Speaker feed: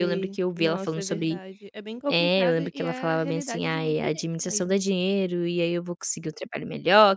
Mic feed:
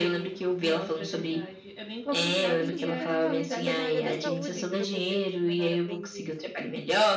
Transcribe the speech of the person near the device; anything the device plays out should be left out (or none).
Nossa, super legal. Então foi na área da saúde que você fez esse menor aprendiz.